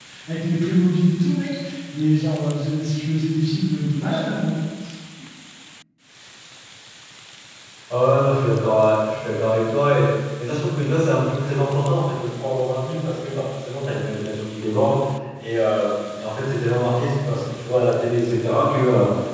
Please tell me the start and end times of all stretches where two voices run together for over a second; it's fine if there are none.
none

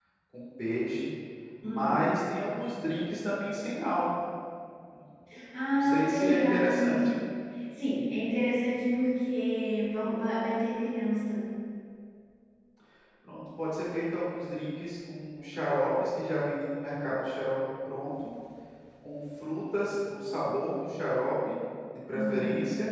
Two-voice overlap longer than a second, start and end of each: 5.7-7.1

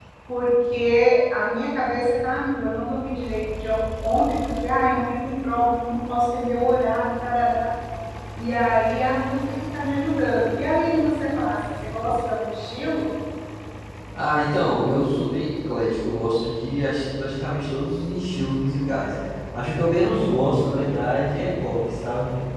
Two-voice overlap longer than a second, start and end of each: none

